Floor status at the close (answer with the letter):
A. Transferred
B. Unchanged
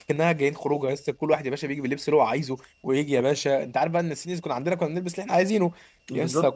B